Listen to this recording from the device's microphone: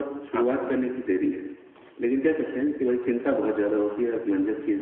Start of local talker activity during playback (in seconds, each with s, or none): 0.3 s